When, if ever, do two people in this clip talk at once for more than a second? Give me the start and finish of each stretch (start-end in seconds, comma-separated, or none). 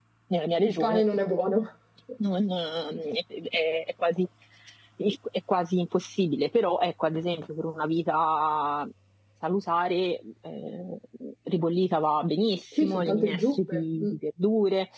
12.8-14.1